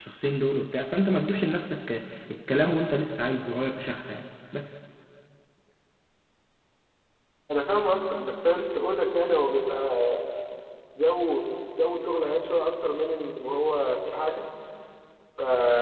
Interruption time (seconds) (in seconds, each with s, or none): none